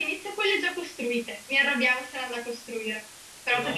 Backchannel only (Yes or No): Yes